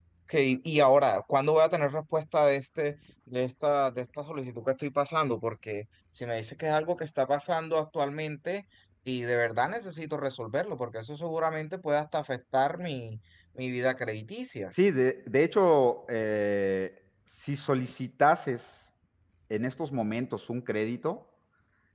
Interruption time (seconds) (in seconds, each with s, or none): none